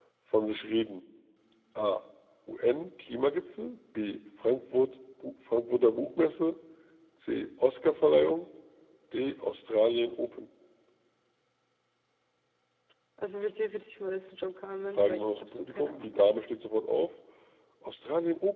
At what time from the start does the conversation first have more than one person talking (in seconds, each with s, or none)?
14.9 s